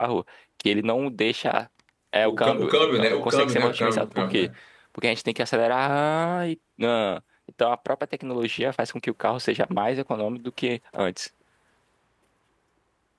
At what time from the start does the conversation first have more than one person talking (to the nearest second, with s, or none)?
2 s